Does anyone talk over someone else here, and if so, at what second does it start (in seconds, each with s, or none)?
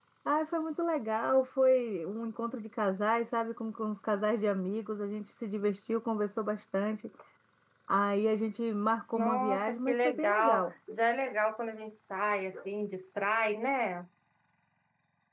9.1 s